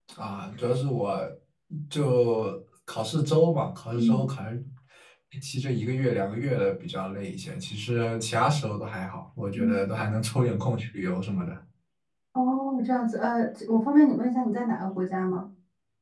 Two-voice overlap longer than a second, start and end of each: none

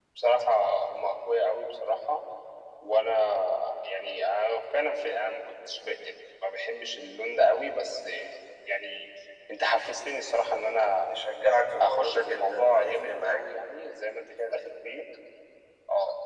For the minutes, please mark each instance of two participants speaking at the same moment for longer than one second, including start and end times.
11.8-13.4

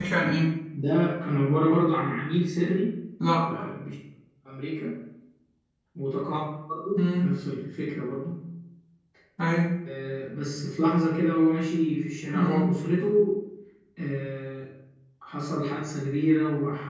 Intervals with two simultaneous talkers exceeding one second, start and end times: none

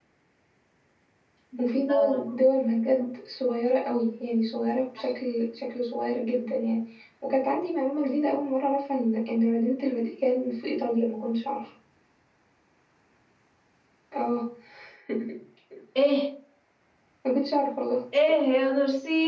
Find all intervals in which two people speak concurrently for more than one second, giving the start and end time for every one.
none

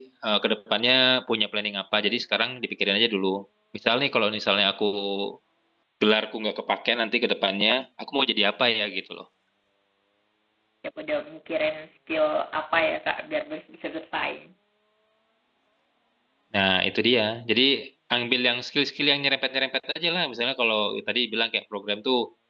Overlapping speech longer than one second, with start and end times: none

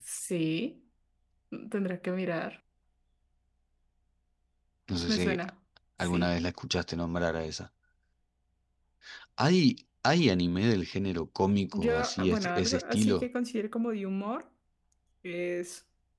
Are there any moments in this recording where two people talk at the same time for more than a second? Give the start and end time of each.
11.7-13.2

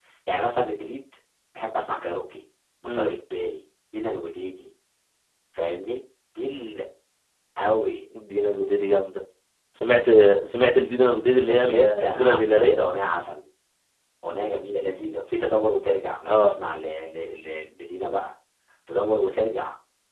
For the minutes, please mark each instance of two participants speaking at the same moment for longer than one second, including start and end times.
11.4-12.8

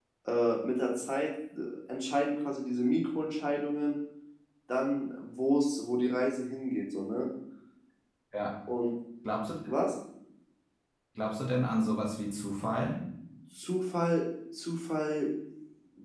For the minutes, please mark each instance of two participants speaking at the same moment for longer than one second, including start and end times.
none

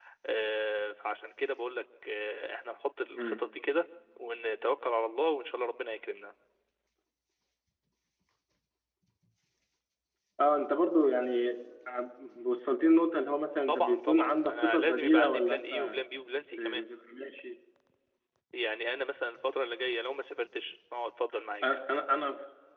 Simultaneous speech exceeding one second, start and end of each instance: 13.7-16.0

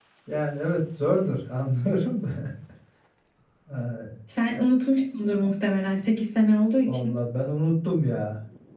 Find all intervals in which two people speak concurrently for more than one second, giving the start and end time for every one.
none

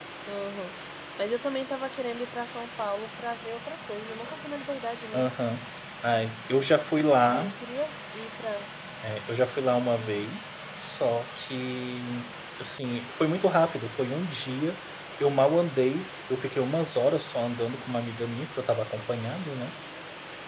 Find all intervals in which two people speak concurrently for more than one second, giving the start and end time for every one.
none

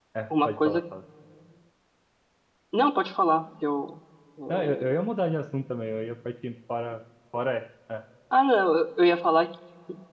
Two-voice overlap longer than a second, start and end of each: none

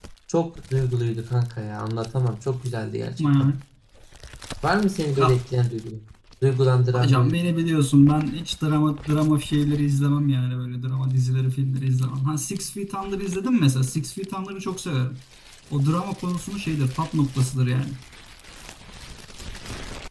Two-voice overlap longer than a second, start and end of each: none

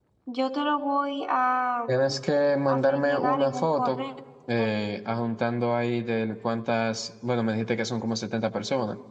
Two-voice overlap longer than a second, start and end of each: 2.7-4.0

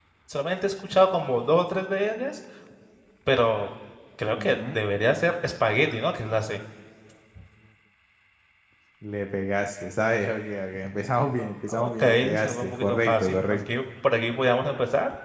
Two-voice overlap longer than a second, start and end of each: 11.7-13.6

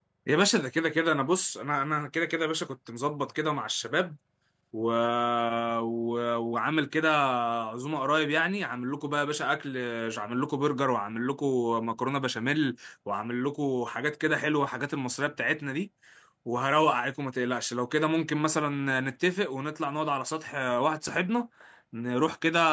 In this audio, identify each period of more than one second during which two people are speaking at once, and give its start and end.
none

